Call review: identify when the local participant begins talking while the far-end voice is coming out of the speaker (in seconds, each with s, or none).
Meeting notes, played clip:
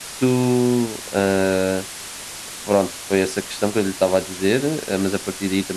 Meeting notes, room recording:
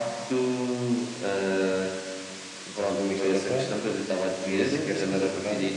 2.6 s